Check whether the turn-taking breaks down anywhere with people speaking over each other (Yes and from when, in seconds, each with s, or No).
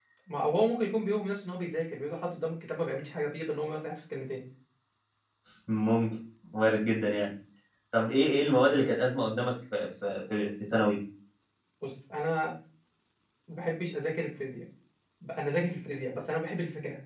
No